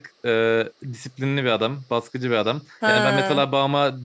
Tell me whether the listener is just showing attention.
Yes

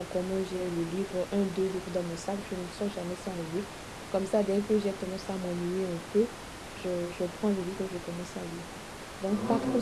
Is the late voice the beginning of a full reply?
No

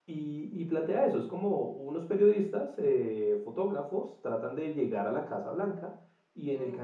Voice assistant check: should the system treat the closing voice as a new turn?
No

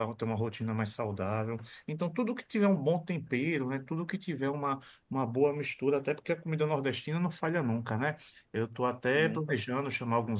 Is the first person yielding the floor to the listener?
No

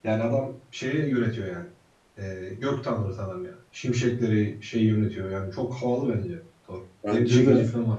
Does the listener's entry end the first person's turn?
No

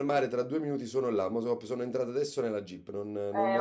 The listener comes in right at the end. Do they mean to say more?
Yes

